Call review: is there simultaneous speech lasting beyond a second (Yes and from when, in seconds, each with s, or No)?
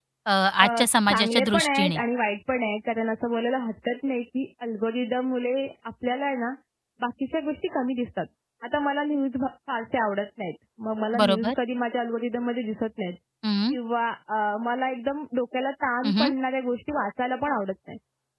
Yes, from 0.6 s